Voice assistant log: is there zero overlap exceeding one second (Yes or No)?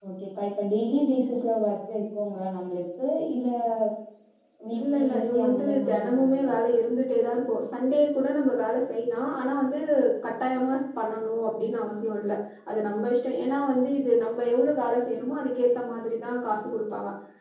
No